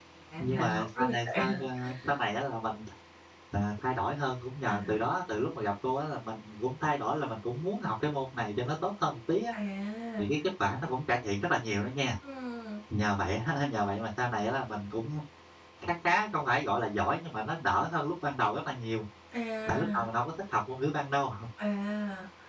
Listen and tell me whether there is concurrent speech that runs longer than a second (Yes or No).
Yes